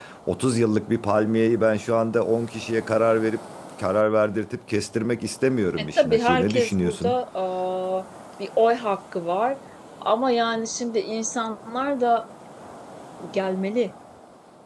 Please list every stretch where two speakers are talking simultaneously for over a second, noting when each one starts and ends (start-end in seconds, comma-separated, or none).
5.8-7.2